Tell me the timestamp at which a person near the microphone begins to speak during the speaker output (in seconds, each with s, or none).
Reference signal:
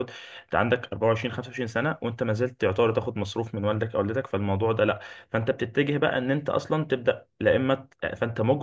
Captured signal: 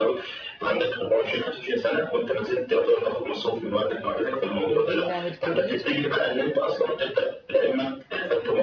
4.6 s